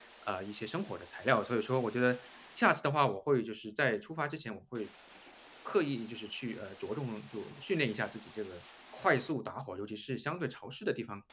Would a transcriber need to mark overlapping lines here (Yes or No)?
No